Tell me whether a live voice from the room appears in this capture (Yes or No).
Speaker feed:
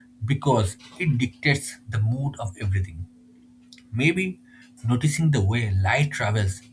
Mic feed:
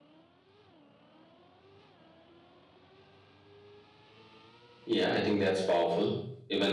Yes